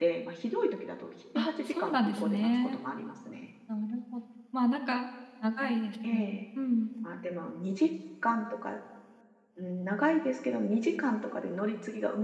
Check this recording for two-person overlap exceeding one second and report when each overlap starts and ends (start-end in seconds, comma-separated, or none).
1.4-2.8